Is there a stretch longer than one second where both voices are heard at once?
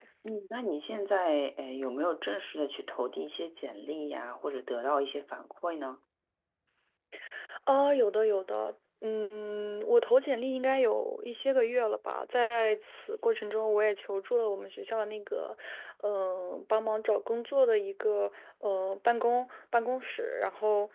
No

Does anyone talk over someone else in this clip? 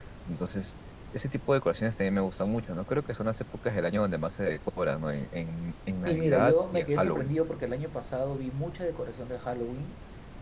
Yes, from 6.1 s

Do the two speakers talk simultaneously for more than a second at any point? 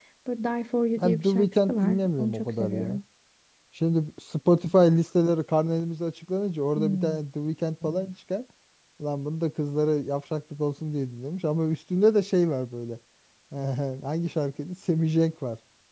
Yes, from 1.0 s

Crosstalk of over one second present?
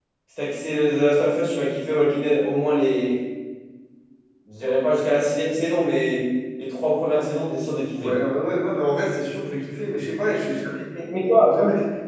No

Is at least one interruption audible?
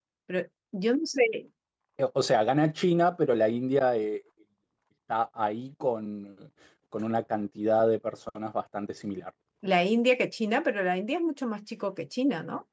No

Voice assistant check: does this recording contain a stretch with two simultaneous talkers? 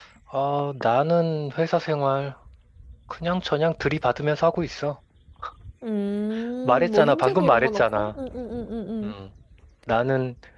Yes, from 6.6 s

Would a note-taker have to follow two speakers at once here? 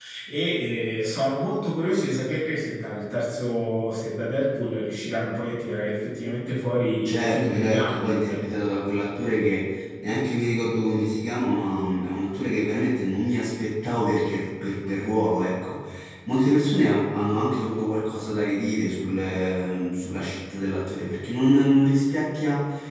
Yes, from 7.0 s

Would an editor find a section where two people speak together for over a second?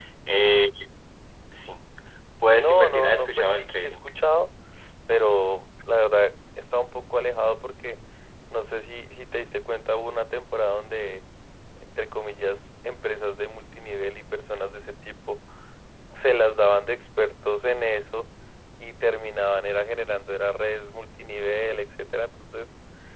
Yes, from 2.6 s

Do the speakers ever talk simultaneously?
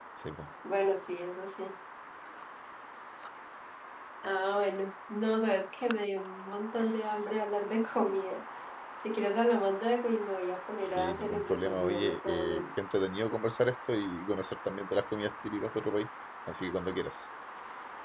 Yes, from 10.9 s

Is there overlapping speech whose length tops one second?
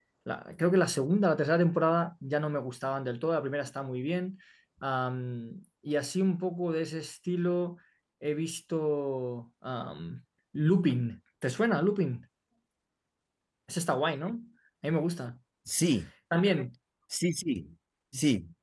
No

